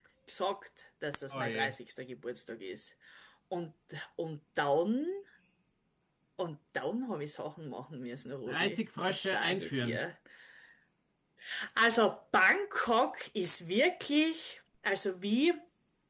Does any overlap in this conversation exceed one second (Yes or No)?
Yes